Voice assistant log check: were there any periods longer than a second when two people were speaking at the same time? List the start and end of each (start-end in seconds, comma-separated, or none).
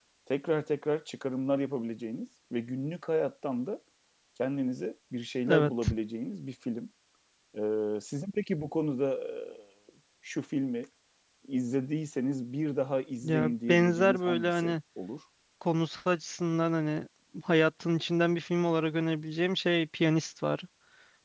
13.2-14.8